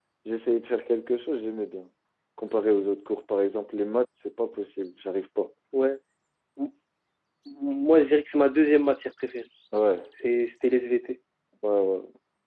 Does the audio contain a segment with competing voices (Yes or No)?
No